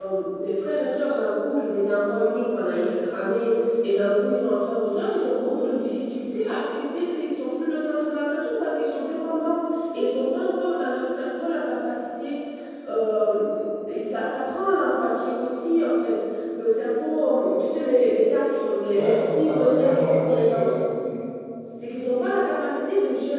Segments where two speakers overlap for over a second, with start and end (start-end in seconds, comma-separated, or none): 18.9-20.7